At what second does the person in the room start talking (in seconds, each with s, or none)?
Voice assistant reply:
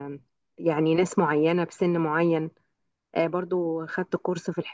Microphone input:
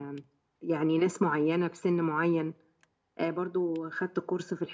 none